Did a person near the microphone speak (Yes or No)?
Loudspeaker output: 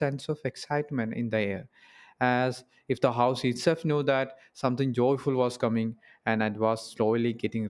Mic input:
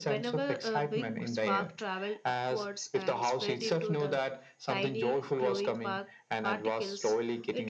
Yes